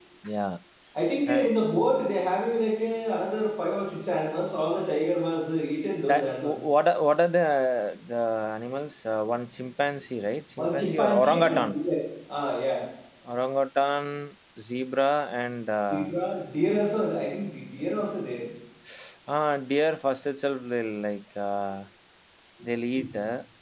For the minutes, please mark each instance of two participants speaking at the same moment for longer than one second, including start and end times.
10.6-11.8

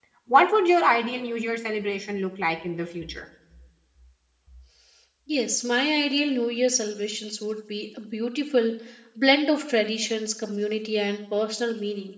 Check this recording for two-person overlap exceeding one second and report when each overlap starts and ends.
none

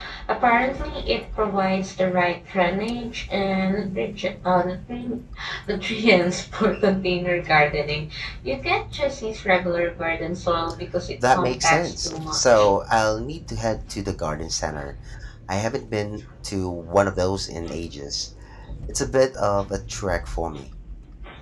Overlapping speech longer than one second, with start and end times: 11.3-12.7

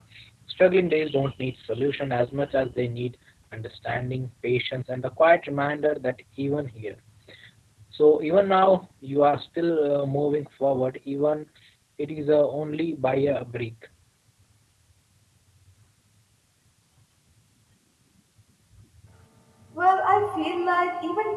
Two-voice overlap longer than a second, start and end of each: none

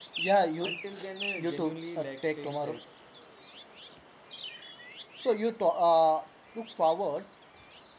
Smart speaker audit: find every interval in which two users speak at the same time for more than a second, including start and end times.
1.4-2.8

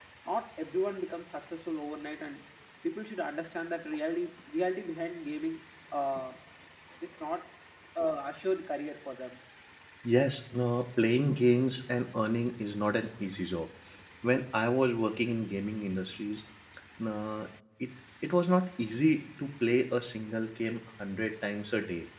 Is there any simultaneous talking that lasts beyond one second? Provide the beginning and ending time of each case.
none

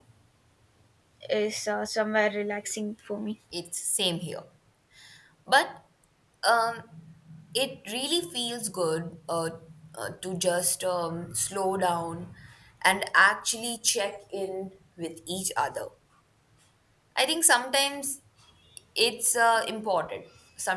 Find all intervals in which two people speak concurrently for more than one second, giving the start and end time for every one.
none

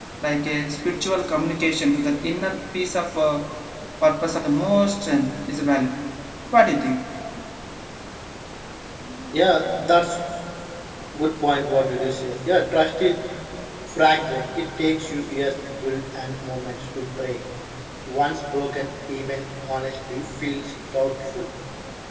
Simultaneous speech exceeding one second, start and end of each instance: none

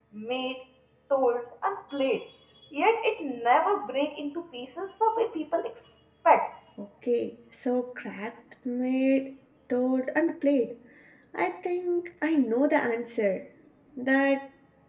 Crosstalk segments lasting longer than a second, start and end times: none

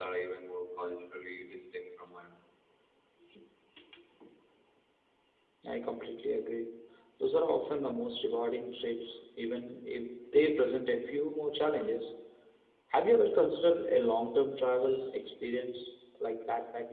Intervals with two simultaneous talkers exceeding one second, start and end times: none

